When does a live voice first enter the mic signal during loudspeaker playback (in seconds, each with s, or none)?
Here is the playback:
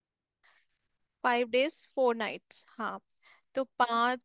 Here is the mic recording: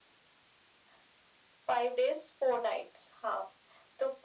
none